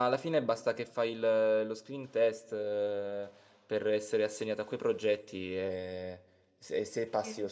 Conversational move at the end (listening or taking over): listening